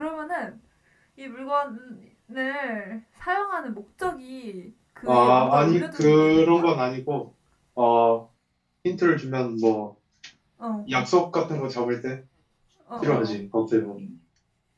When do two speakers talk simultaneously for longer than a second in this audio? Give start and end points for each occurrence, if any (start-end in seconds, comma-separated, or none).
5.1-6.7